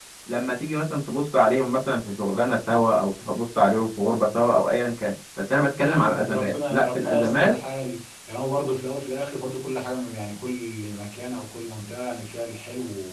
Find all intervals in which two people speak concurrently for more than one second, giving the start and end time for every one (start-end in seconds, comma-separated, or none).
5.6-7.5